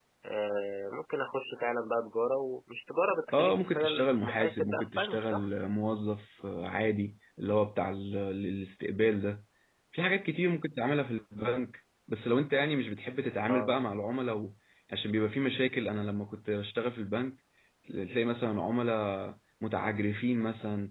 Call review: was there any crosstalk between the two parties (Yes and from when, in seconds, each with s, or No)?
Yes, from 3.3 s